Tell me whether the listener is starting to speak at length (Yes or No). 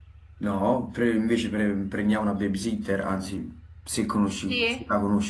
Yes